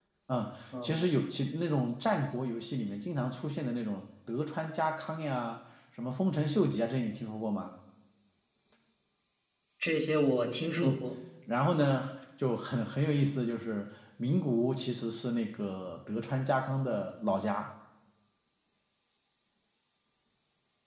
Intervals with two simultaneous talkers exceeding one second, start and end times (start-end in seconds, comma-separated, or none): none